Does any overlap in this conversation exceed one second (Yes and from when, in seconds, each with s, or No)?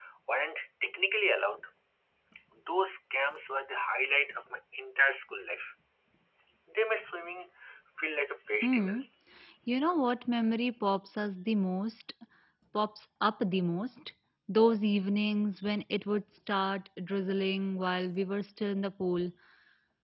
No